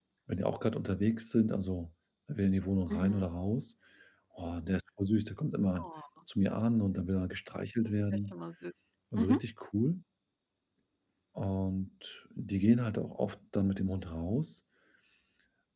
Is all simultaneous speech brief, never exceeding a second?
Yes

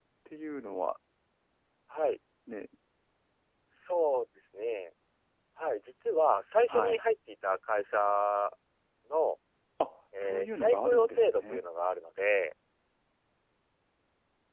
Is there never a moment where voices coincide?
No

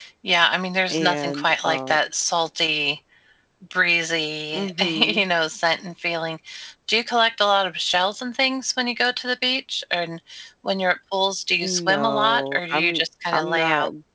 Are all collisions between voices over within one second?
No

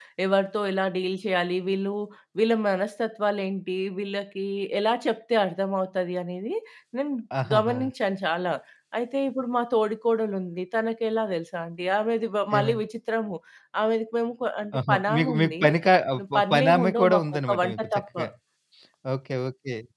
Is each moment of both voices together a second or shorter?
No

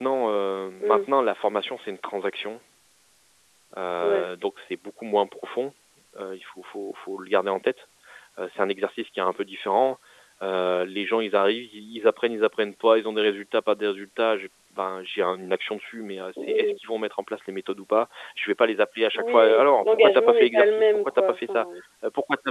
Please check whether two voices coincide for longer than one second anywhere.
Yes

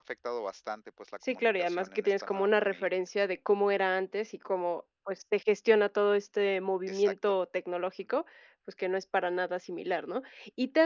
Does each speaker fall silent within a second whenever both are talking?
No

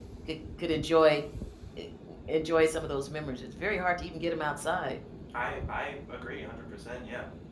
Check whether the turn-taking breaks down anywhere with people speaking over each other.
No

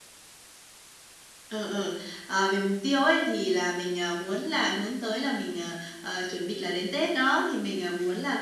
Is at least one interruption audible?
No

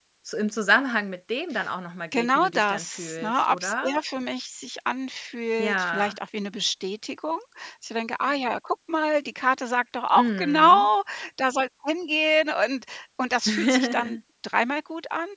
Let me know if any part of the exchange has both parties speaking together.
Yes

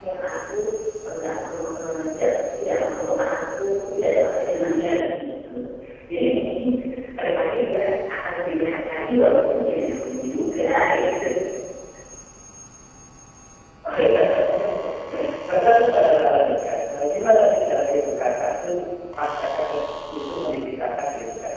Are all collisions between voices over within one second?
Yes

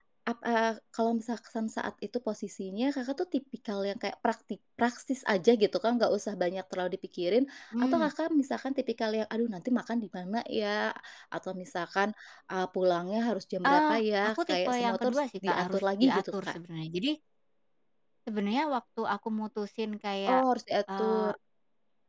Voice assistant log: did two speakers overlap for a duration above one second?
Yes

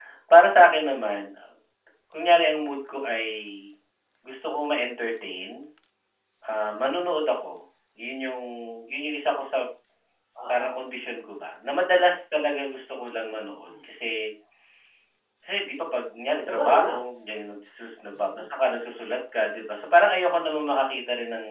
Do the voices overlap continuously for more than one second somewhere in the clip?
No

